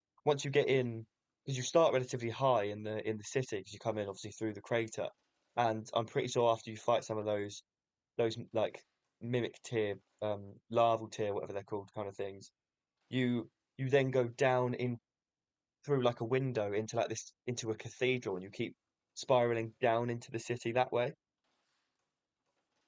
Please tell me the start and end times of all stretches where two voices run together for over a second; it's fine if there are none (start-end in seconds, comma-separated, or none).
none